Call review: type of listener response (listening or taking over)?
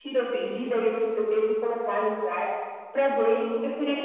taking over